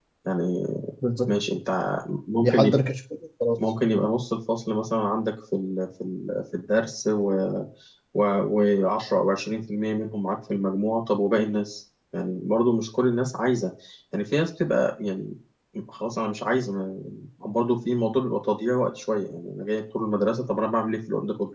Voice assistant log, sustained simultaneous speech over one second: none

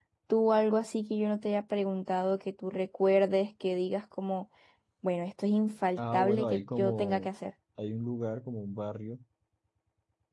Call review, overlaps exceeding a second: present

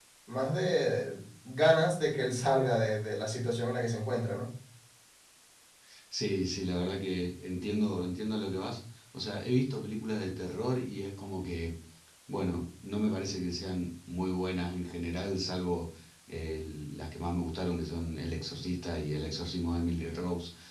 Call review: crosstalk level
none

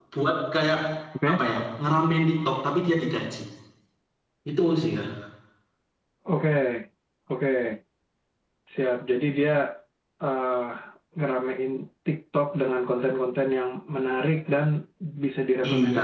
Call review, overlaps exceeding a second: none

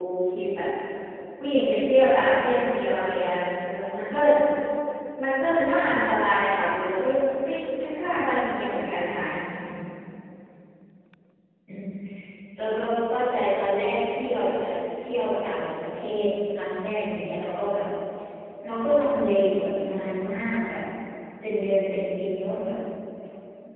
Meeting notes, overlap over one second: none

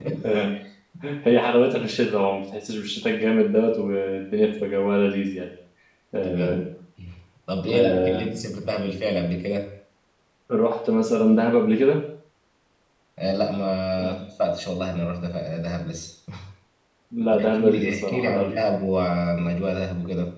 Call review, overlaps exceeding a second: present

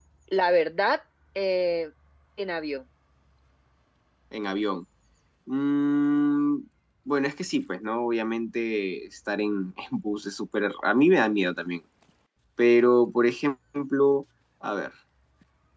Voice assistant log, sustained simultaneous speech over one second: none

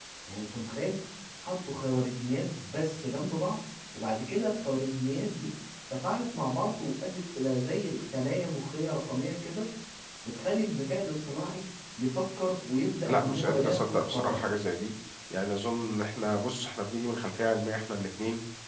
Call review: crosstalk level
present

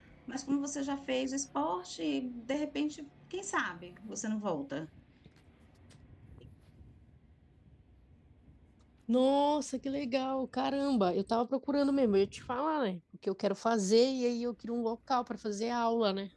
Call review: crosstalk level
none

